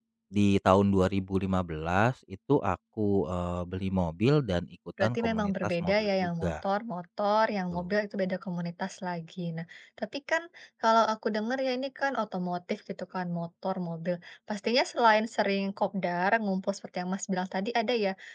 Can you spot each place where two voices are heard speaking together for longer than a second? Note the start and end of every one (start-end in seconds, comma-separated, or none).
5.0-6.7